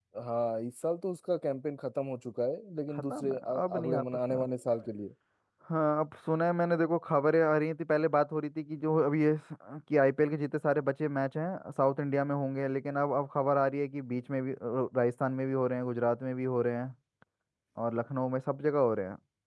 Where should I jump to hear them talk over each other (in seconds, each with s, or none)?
3.1 s